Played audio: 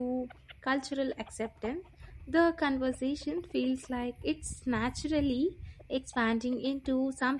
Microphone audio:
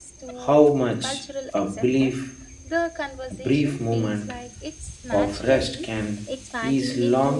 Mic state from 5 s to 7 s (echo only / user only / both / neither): both